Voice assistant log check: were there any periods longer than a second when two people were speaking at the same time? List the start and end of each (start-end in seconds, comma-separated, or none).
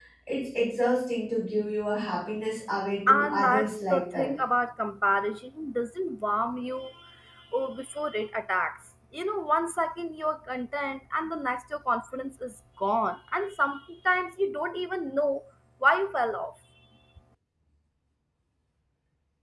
3.1-4.3